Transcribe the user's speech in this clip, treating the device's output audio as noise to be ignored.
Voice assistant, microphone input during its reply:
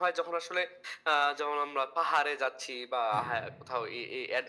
হ্যাঁ।

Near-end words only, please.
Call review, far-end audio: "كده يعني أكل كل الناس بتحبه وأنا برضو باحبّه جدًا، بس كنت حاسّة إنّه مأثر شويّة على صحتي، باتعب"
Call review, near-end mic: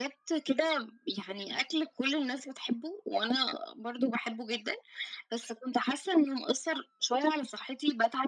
none

